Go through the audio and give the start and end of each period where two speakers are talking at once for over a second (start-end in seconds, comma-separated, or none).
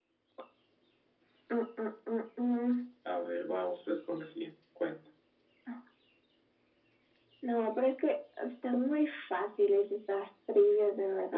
none